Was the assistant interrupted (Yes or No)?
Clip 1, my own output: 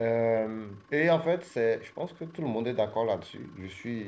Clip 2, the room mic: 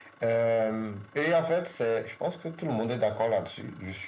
No